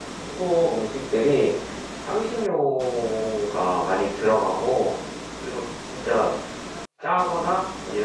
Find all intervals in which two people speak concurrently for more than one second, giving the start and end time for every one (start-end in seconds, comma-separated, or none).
none